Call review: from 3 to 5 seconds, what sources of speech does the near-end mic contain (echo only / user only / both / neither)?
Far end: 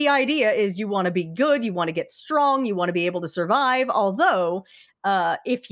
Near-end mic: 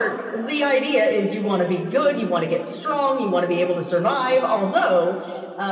echo only